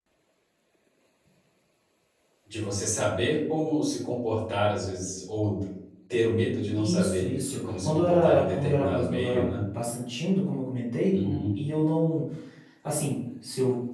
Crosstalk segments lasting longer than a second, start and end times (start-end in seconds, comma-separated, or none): 6.8-9.6